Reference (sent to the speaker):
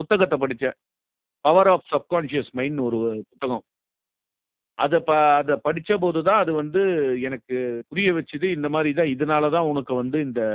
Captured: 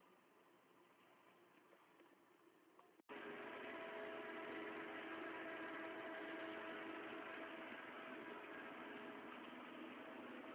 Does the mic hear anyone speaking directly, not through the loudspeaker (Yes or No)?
No